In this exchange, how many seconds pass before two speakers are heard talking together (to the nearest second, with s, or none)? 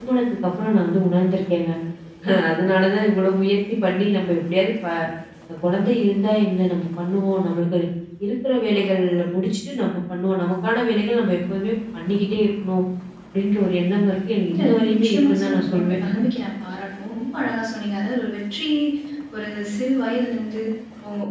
14 s